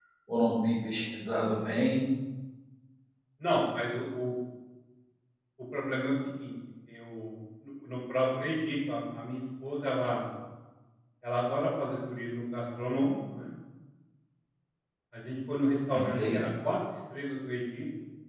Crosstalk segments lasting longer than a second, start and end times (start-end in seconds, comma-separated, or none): none